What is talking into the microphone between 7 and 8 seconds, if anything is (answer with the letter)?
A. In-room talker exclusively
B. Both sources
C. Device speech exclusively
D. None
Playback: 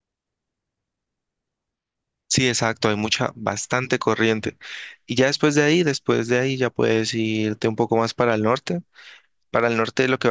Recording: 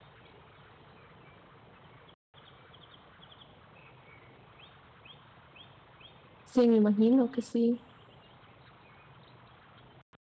A